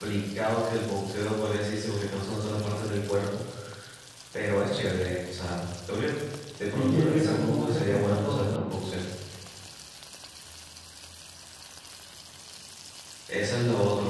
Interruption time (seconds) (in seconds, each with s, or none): 6.7 s